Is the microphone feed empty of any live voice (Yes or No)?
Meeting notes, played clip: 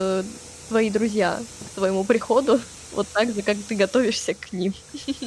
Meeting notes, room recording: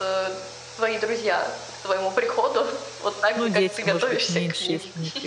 No